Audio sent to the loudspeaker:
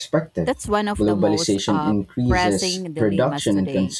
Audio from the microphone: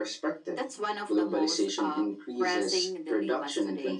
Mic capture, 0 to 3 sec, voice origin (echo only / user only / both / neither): echo only